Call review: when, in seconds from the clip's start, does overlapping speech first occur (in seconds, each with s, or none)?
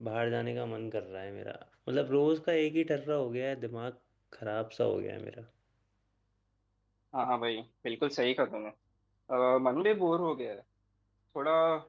none